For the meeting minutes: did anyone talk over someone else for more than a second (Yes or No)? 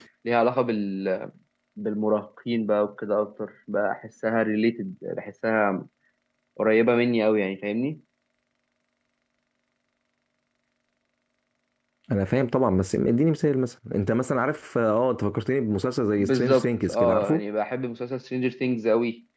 Yes